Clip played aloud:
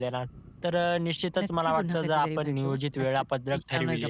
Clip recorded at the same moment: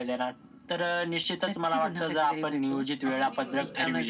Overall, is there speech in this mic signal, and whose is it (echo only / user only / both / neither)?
both